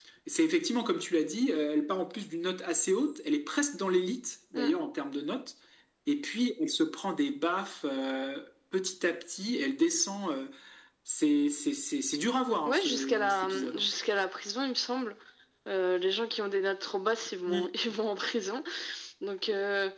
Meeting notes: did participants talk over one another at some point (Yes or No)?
Yes